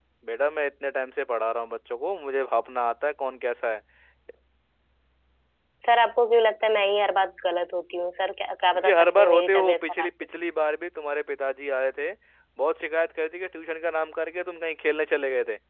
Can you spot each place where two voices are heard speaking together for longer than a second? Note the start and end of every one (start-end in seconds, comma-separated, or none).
8.7-10.1